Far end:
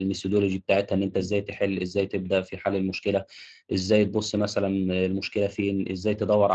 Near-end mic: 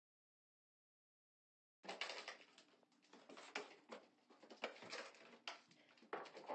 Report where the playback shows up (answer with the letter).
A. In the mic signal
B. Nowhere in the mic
B